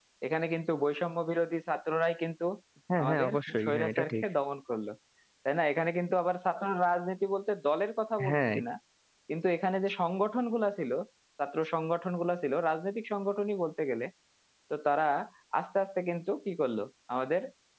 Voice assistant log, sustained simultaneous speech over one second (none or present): present